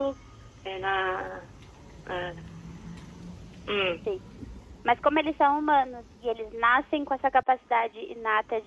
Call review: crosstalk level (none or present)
none